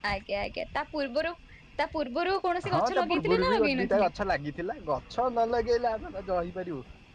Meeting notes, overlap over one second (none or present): present